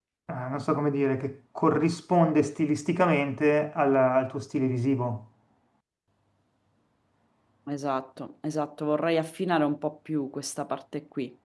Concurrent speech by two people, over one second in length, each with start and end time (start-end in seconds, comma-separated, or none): none